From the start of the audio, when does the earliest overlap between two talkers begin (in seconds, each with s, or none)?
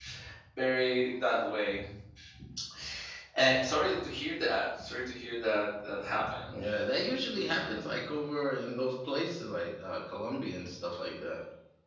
none